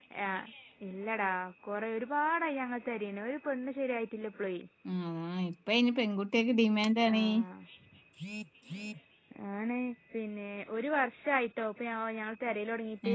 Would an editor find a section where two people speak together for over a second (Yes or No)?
No